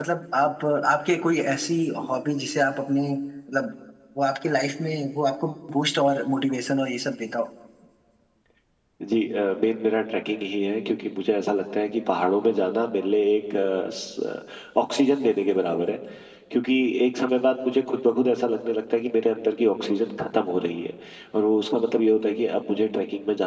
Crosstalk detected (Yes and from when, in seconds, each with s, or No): No